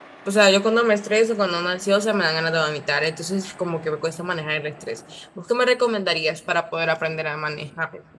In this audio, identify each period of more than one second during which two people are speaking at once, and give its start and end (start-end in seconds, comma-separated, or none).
none